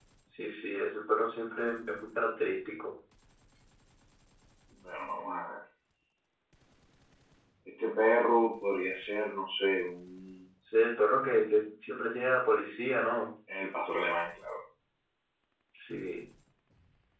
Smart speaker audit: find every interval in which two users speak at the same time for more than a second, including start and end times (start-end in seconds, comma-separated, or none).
none